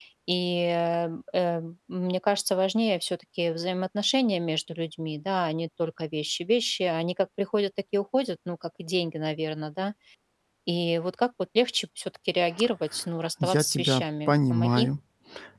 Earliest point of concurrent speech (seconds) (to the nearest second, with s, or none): 13 s